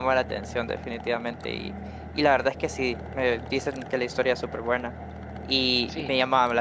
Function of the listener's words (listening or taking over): listening